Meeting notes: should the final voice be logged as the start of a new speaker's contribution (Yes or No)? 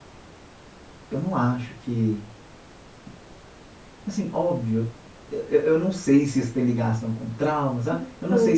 No